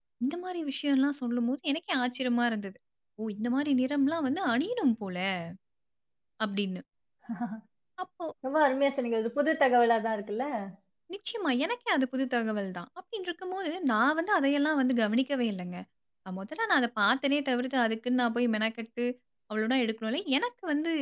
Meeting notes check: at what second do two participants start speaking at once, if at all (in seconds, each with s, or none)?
none